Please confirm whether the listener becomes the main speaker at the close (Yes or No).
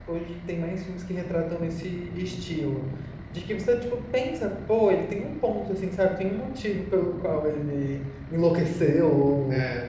No